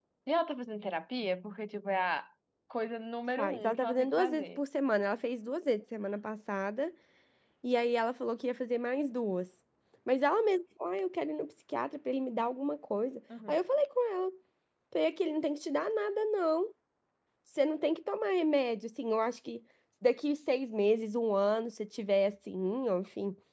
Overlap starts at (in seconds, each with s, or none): 3.4 s